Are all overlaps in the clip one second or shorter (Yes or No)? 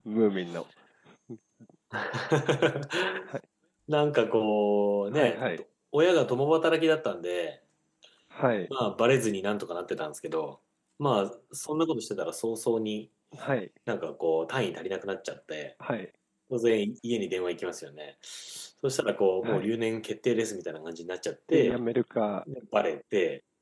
Yes